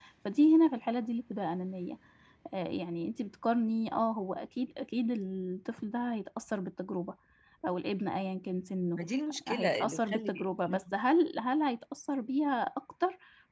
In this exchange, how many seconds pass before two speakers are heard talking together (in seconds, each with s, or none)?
9.5 s